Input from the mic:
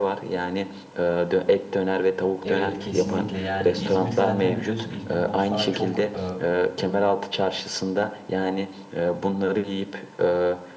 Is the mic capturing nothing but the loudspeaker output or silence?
No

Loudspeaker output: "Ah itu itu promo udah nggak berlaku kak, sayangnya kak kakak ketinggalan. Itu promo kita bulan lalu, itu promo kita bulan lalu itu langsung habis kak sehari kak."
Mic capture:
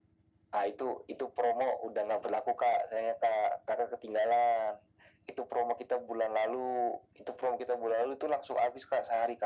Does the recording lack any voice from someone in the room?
Yes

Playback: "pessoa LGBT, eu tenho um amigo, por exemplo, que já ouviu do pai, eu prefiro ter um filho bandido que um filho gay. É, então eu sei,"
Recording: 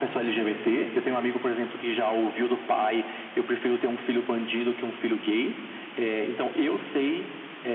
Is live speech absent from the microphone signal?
Yes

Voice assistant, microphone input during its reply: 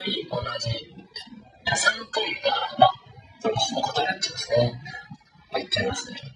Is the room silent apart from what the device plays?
Yes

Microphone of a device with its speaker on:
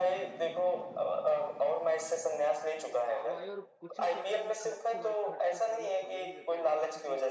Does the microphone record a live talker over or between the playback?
Yes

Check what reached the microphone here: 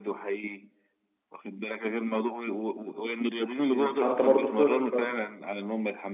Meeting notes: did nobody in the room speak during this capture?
No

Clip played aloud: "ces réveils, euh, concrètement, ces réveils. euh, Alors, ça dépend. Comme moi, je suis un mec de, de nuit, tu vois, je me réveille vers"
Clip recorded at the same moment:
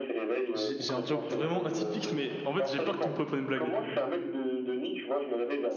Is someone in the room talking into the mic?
Yes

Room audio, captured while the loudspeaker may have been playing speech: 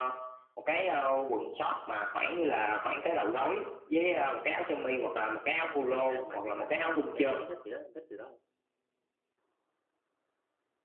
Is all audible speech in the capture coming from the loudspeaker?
No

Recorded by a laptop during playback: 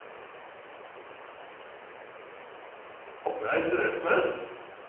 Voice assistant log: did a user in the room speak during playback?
Yes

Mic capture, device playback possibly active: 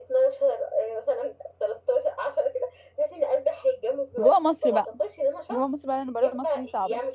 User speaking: Yes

